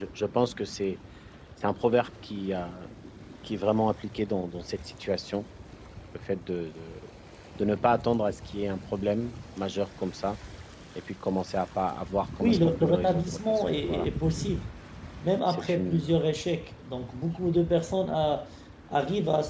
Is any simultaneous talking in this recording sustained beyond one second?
Yes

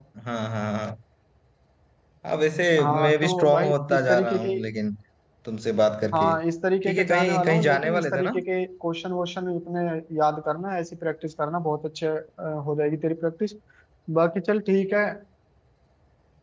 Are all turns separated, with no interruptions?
No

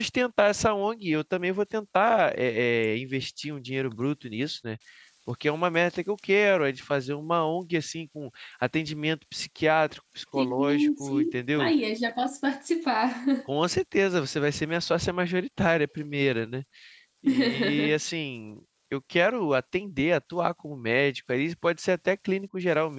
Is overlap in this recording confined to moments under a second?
No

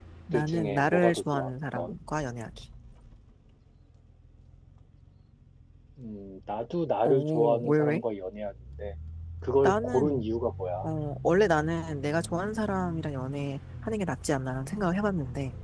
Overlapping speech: Yes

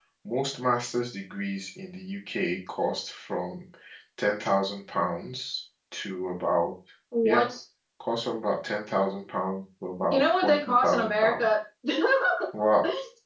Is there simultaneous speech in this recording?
Yes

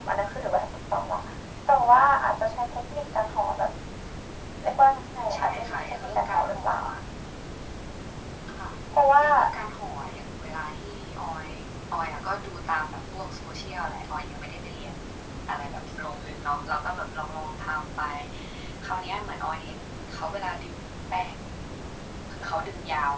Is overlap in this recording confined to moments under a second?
No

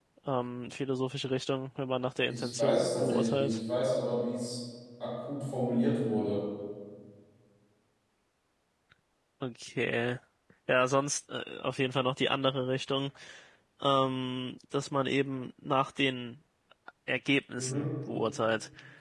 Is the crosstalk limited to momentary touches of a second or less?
No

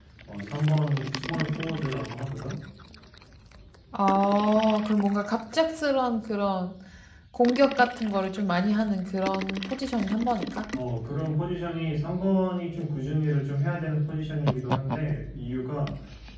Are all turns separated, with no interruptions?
Yes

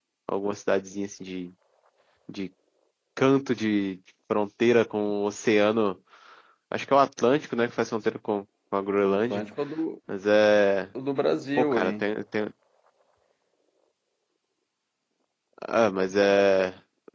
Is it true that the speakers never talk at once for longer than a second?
Yes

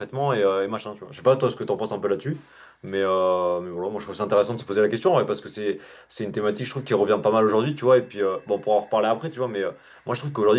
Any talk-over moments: No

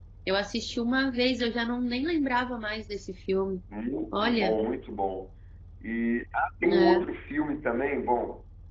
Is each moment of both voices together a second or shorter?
Yes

